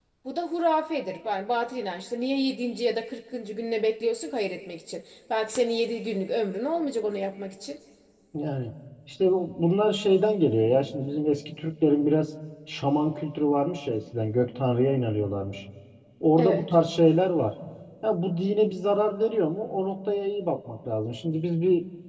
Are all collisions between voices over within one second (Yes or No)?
Yes